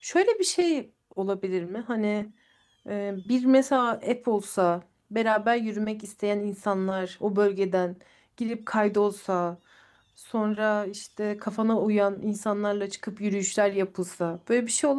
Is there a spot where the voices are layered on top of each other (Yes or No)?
No